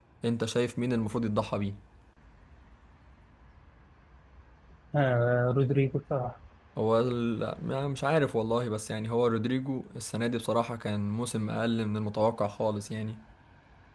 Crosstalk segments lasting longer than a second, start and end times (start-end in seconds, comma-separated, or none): none